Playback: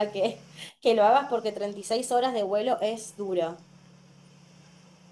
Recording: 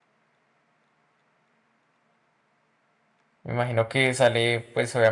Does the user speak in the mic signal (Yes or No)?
Yes